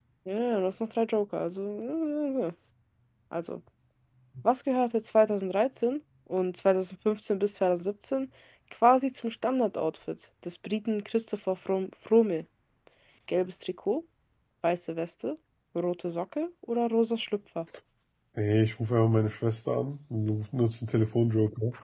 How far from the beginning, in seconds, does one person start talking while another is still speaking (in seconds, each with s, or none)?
none